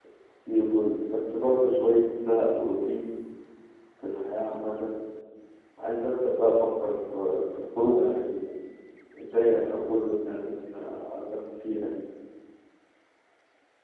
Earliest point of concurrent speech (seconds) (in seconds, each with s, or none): none